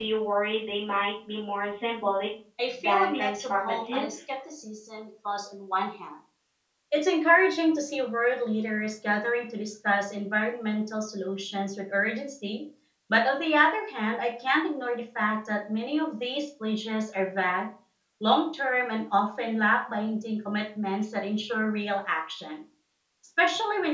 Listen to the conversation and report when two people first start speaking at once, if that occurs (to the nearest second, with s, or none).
3 s